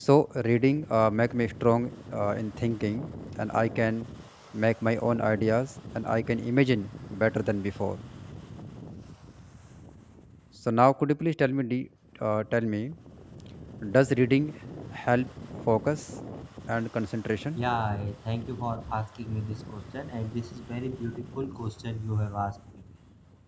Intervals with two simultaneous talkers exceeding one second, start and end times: none

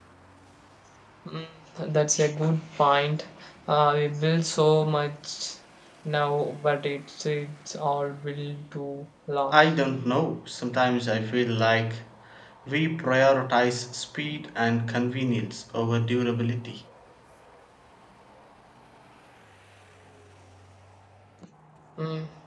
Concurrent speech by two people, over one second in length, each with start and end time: none

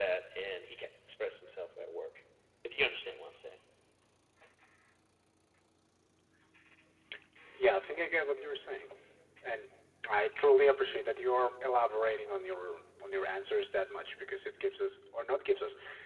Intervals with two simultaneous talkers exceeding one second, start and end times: none

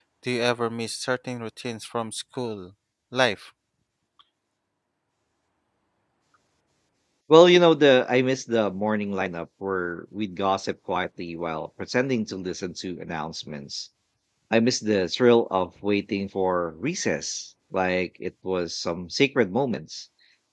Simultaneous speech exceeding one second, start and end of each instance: none

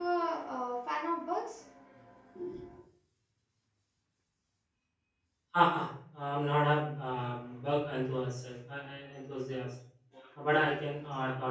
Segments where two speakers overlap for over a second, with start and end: none

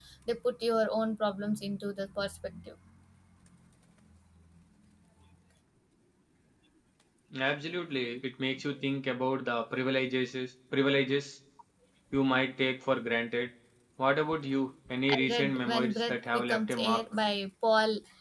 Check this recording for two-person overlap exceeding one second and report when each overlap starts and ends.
15.1-17.0

